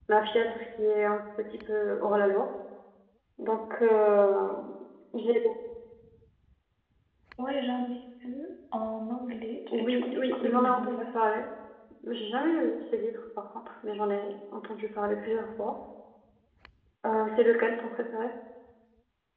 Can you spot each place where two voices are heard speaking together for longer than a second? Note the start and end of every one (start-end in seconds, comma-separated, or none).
9.7-11.1